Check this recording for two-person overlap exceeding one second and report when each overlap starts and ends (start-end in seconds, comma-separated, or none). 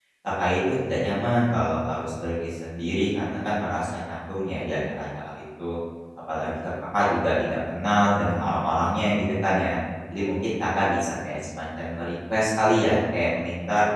none